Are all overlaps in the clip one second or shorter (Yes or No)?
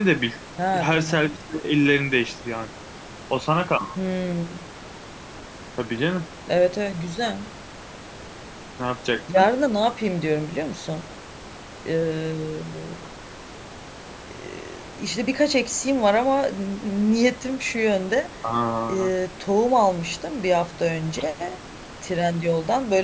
Yes